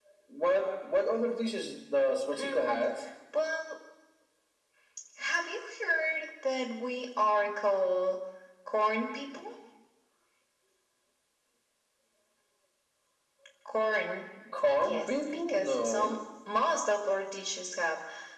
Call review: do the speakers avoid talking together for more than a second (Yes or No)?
No